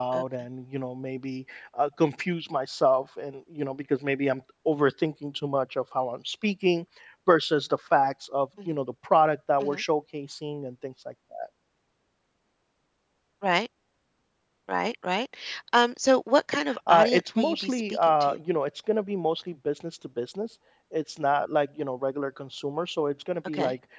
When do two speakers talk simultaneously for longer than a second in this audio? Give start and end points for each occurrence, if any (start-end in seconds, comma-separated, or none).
16.9-18.4